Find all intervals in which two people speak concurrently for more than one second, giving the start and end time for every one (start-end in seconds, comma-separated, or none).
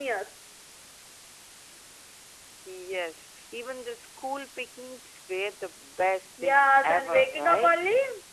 6.4-7.8